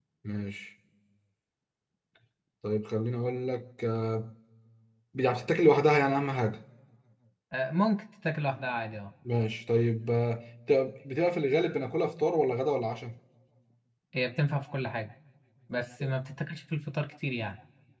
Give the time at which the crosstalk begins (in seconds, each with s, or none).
none